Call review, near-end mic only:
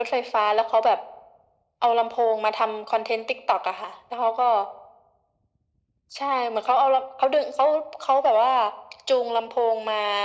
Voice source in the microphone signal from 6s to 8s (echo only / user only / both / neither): echo only